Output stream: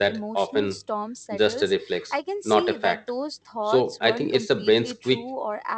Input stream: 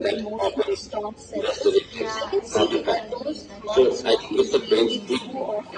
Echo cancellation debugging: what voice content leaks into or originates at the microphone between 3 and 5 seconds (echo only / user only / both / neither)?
both